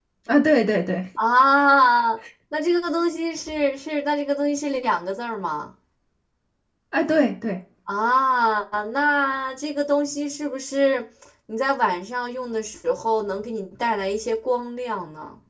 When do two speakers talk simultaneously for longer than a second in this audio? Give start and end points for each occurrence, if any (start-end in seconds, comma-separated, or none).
none